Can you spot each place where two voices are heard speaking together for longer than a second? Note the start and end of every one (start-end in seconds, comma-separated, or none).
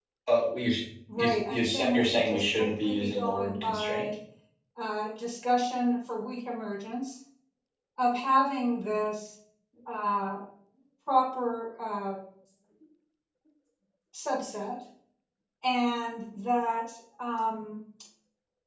1.2-4.0